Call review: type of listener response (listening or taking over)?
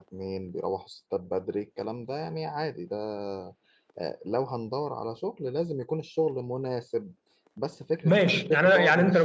taking over